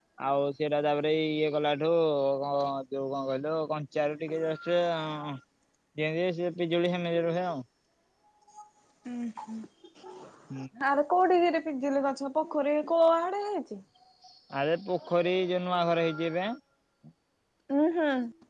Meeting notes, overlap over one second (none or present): none